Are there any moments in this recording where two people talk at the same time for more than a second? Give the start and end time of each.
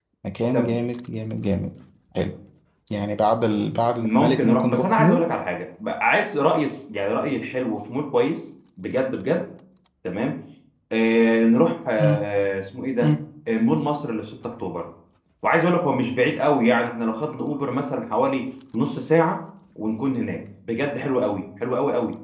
4.0-5.2

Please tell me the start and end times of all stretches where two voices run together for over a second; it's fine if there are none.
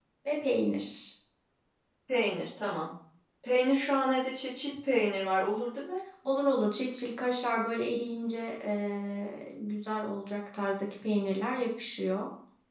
none

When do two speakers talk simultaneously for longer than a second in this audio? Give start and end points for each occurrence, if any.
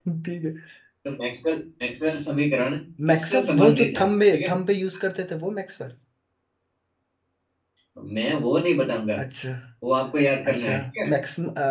3.1-4.6

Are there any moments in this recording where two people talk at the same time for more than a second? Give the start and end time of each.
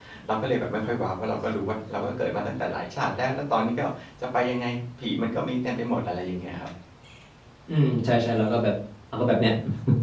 none

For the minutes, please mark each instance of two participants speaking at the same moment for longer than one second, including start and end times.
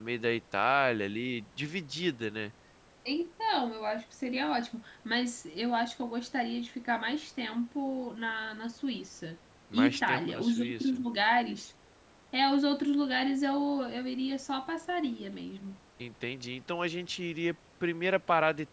9.7-11.0

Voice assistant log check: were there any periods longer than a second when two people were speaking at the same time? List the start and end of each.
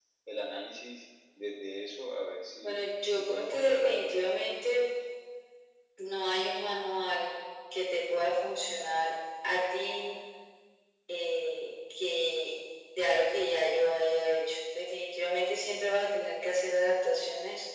2.6-4.2

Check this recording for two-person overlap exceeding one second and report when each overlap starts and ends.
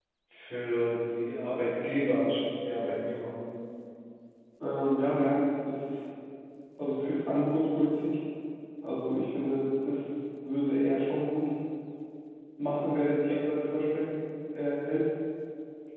none

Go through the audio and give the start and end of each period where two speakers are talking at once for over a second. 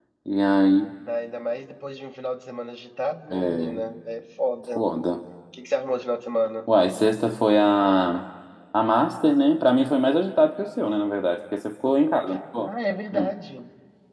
none

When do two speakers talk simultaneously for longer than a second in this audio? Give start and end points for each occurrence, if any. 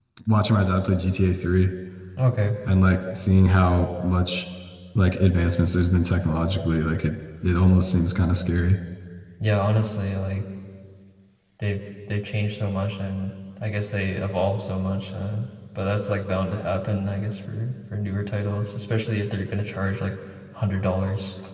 none

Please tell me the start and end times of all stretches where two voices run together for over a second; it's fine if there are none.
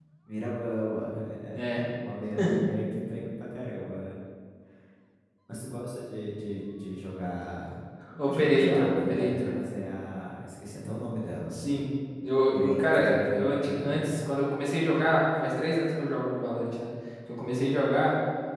8.3-9.5, 12.5-14.4

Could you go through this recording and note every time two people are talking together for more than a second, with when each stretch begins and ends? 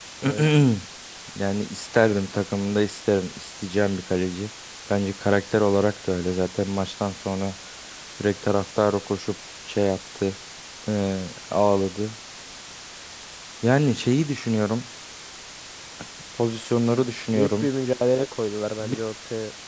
none

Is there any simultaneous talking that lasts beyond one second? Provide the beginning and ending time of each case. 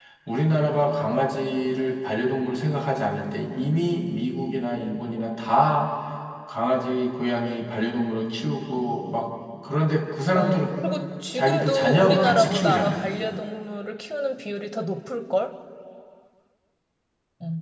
11.3-13.0

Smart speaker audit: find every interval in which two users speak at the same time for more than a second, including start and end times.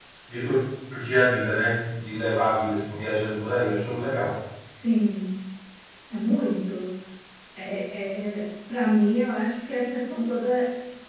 none

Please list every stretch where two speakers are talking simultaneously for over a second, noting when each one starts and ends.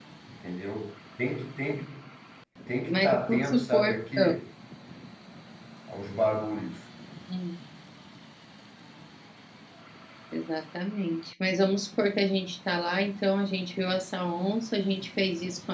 2.9-4.3

